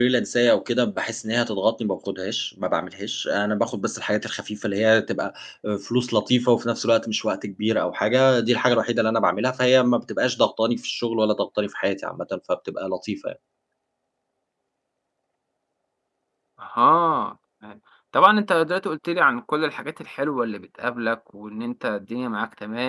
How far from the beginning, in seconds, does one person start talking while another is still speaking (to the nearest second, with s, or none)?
none